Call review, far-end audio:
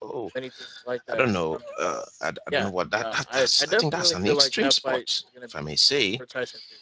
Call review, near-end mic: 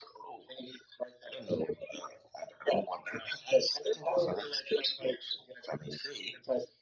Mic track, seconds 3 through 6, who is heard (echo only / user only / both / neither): echo only